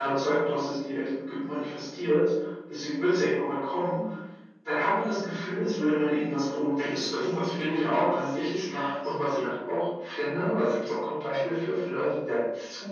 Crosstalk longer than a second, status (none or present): present